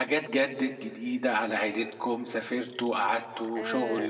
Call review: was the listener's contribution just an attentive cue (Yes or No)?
Yes